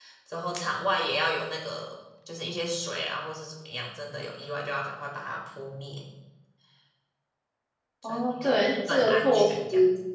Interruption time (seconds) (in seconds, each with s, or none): 8.0 s